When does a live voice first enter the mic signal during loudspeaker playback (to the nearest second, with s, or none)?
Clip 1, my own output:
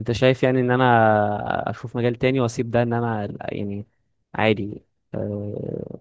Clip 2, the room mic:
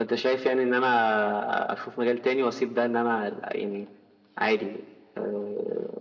none